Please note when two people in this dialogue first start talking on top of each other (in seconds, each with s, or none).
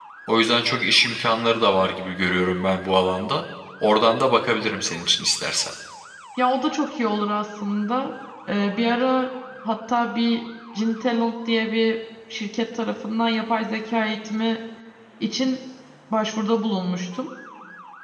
none